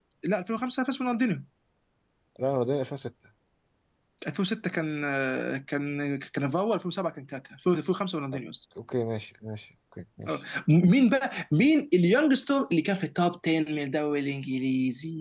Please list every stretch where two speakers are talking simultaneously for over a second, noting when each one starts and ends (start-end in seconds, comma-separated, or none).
none